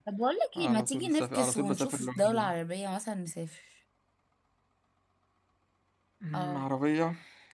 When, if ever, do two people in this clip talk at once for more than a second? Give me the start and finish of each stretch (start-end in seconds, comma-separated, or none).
0.6-2.5